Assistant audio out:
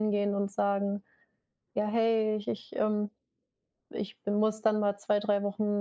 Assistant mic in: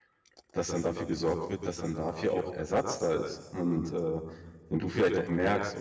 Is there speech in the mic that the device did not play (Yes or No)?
Yes